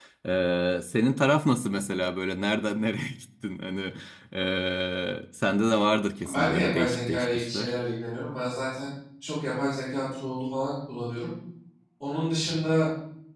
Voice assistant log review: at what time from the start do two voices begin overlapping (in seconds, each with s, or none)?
6.2 s